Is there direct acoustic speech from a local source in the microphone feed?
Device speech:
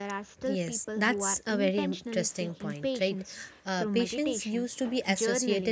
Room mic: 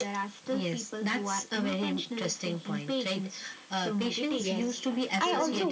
Yes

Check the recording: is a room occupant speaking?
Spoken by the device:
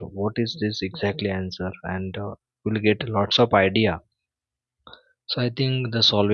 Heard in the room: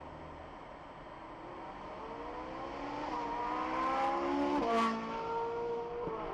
No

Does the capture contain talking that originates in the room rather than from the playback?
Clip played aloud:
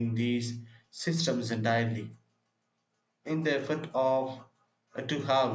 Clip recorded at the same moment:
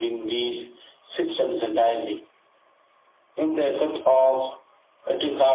No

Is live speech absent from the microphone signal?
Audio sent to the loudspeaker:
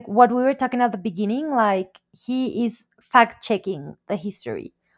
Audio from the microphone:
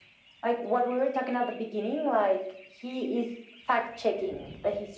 Yes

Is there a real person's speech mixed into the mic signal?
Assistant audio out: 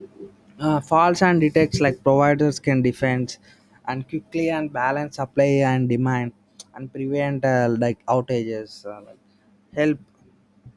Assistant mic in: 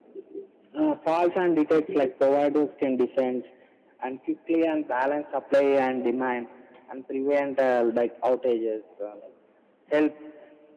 No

